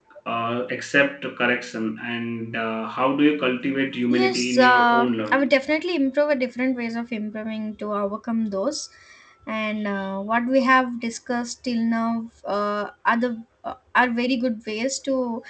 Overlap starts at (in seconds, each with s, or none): 4.1 s